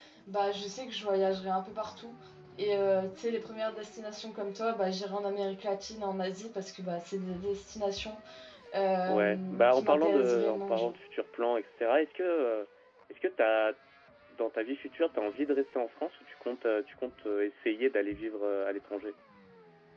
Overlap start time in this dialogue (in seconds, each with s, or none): 9.1 s